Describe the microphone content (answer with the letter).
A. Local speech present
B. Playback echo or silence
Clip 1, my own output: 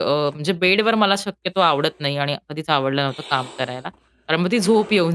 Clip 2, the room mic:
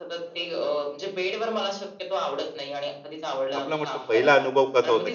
A